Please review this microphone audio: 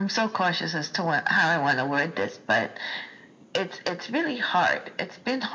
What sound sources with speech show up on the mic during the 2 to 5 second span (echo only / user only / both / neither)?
echo only